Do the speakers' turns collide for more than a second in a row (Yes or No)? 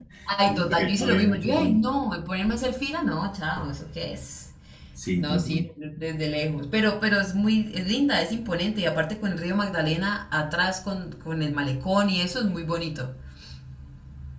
Yes